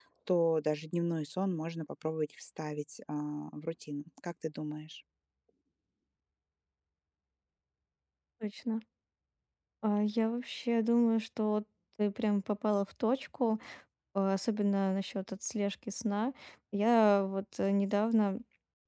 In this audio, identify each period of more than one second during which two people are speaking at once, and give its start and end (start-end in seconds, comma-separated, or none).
none